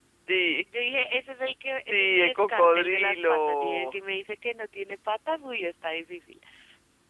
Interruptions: present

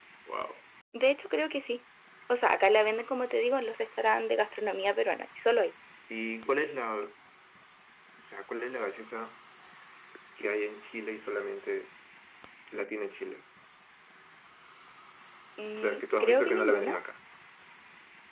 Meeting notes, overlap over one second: present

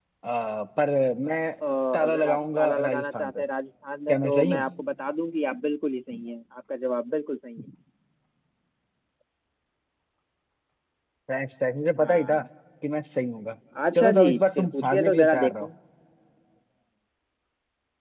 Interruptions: present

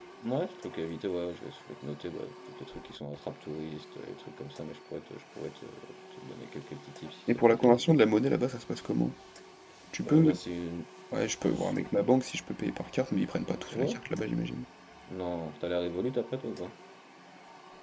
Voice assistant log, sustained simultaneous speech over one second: none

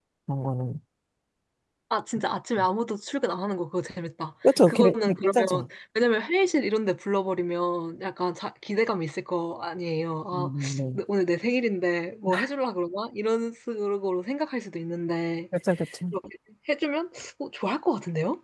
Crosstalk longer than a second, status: present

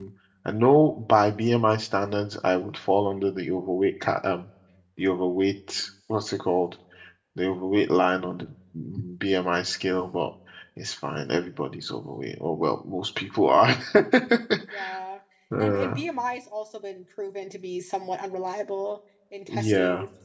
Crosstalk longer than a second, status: none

